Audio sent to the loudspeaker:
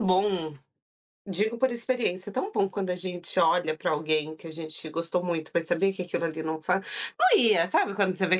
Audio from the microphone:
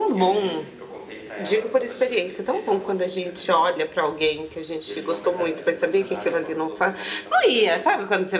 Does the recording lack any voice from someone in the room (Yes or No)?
No